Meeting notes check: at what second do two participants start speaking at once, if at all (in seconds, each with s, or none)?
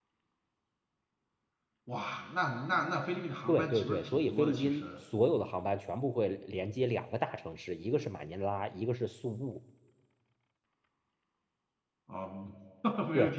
3.5 s